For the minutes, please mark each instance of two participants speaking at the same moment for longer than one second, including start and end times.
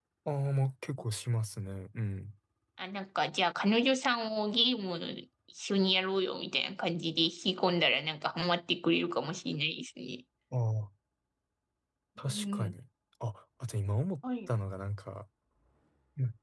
none

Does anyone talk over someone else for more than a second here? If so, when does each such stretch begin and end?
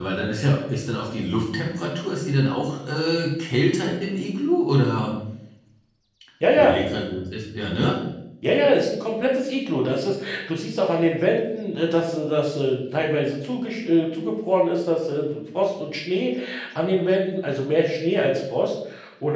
none

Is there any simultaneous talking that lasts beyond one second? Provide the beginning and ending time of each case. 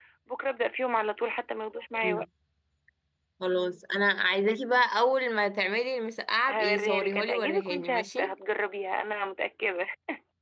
6.5-8.3

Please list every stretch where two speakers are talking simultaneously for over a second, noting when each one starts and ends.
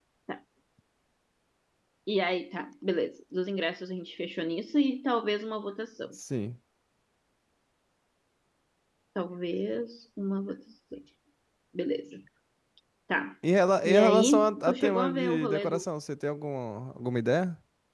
13.8-15.8

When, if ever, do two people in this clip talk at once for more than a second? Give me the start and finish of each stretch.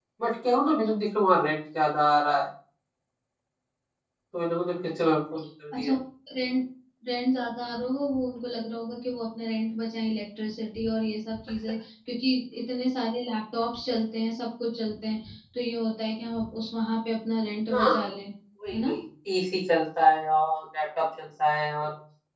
none

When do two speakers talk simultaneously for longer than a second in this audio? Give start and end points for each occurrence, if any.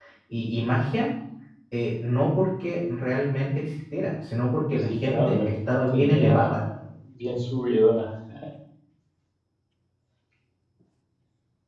4.8-6.6

